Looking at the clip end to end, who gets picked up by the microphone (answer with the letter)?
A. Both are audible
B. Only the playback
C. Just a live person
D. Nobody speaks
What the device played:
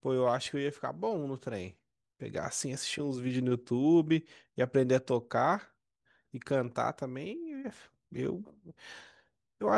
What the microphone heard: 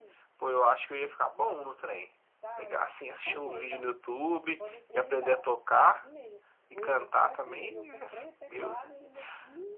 A